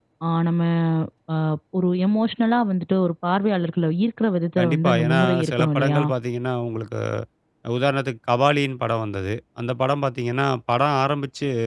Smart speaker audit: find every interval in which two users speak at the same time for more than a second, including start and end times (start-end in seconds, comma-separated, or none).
4.6-6.0